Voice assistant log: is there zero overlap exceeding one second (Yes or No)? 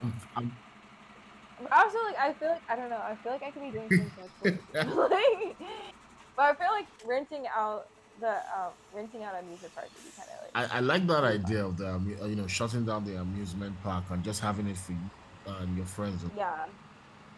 Yes